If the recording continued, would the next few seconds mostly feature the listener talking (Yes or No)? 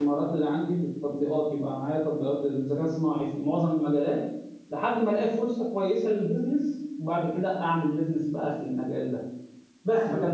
No